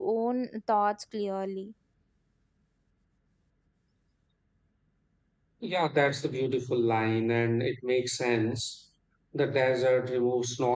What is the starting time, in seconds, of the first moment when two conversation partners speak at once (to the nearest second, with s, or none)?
none